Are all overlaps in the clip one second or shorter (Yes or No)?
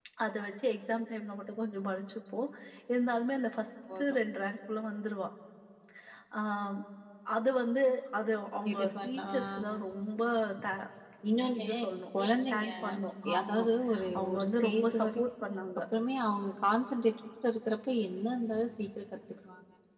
No